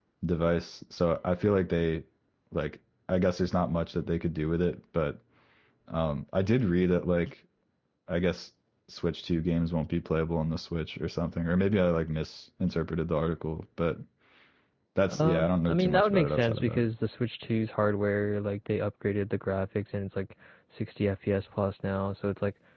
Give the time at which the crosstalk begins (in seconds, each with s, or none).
15.1 s